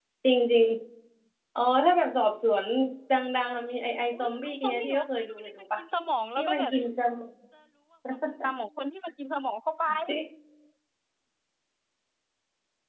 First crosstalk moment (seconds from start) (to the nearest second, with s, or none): 4 s